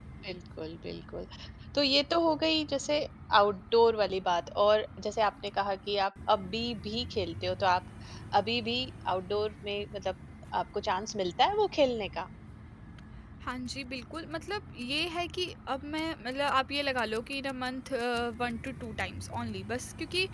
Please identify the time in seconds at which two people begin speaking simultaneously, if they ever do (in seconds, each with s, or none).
none